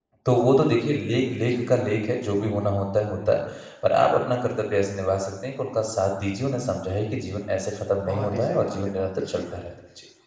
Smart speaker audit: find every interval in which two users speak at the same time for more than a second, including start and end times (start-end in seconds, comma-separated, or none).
8.1-9.6